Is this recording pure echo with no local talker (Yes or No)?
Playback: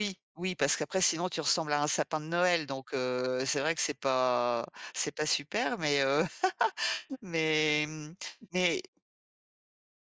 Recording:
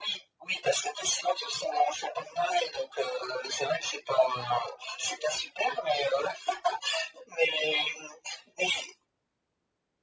Yes